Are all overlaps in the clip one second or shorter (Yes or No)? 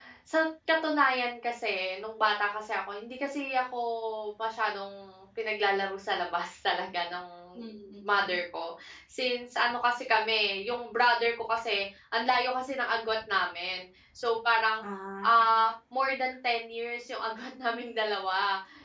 Yes